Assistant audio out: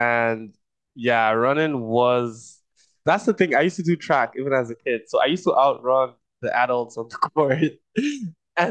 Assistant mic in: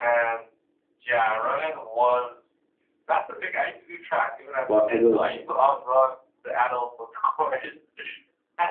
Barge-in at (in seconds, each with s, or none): 4.7 s